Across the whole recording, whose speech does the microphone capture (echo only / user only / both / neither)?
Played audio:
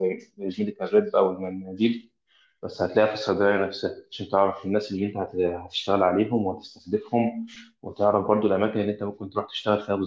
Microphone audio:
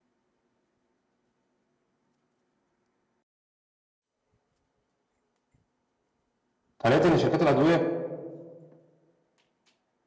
user only